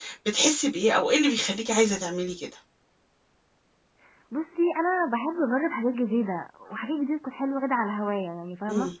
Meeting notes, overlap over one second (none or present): none